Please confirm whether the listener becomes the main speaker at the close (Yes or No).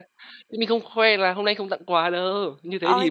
Yes